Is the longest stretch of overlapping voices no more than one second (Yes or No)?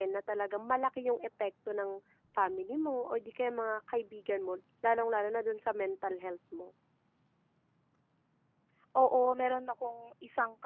Yes